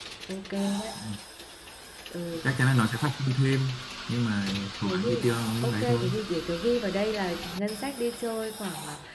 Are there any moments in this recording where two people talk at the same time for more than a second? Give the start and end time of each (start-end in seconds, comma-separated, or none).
4.8-6.1